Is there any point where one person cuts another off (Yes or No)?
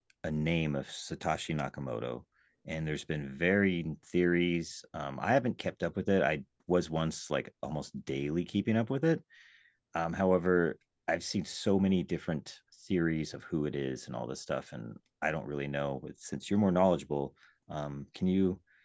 No